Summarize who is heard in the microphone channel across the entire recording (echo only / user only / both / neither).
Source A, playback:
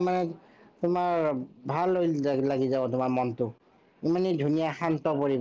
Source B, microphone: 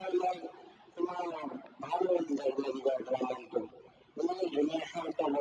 echo only